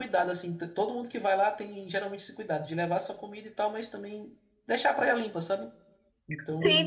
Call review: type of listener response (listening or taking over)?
taking over